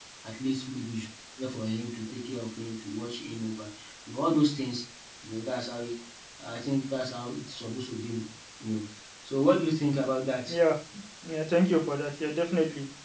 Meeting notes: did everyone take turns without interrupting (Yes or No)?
Yes